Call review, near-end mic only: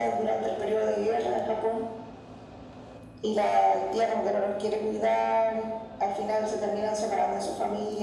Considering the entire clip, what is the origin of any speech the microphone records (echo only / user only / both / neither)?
echo only